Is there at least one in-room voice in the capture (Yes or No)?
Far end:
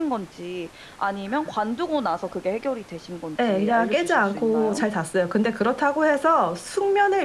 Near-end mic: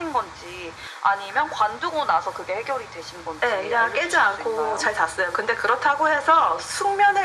No